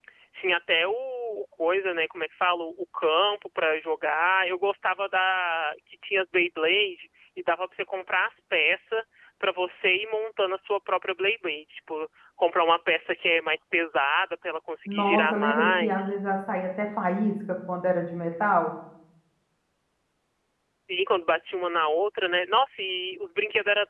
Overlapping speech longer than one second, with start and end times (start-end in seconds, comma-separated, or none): 14.9-16.1